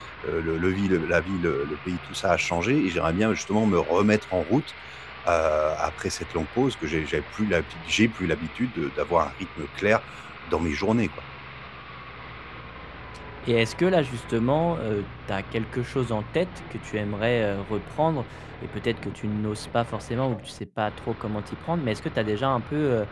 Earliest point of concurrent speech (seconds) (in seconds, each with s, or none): none